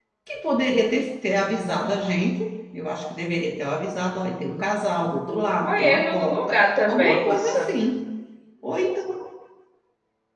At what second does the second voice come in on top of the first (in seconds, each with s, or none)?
5.6 s